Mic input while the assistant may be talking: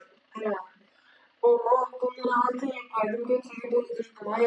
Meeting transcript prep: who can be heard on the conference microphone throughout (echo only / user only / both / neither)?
echo only